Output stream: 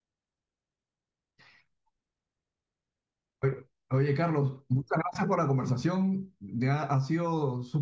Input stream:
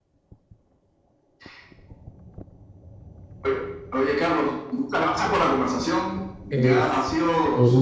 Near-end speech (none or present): present